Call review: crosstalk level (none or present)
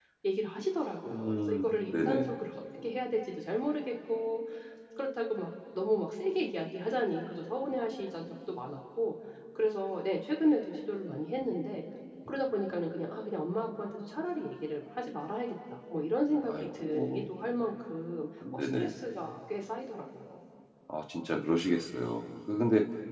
present